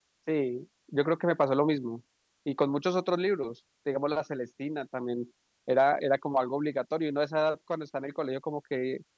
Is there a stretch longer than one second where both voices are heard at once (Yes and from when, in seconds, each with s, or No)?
No